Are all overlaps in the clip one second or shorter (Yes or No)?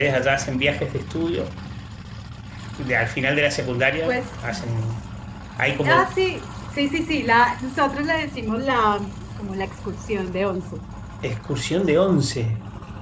Yes